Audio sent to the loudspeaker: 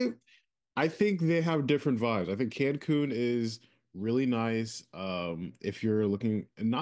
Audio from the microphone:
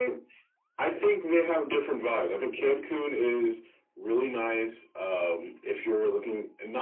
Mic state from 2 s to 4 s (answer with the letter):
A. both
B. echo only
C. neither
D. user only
B